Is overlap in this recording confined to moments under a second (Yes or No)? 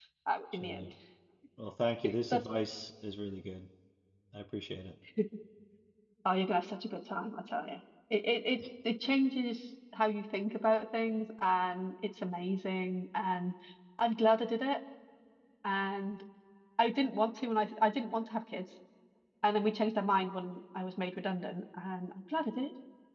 Yes